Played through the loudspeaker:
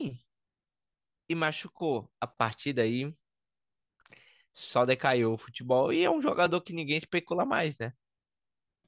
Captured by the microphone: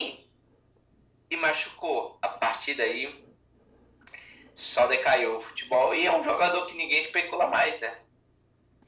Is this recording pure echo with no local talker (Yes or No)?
Yes